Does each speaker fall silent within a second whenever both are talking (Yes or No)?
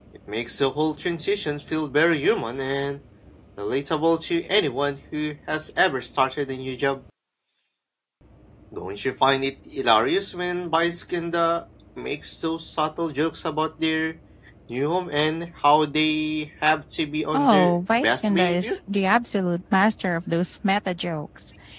No